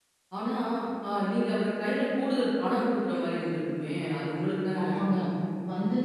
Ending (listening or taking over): taking over